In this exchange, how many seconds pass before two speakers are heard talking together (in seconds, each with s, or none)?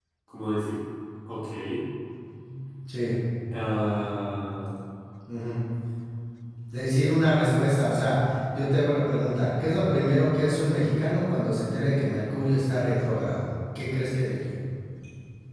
none